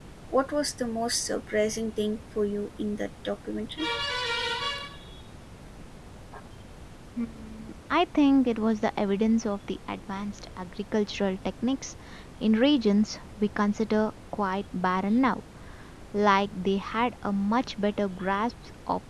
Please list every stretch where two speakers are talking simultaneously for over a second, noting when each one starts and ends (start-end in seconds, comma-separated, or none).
none